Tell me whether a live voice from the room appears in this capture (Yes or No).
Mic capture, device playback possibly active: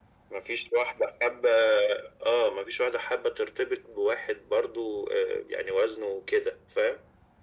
No